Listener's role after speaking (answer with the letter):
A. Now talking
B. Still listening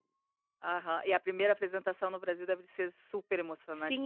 A